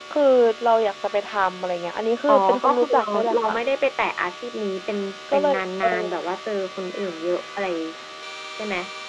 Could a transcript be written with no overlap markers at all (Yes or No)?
No